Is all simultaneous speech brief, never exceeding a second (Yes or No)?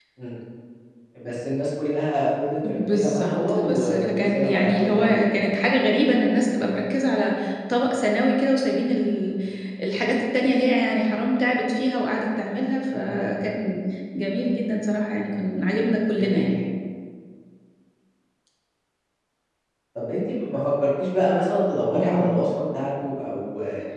No